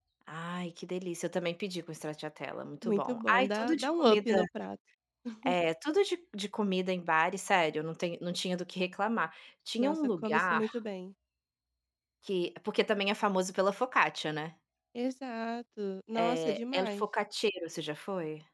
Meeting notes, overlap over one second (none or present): present